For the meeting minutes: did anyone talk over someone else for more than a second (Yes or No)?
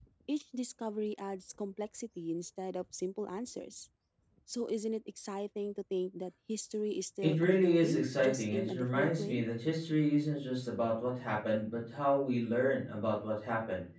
Yes